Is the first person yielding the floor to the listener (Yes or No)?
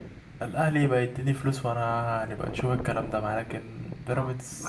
Yes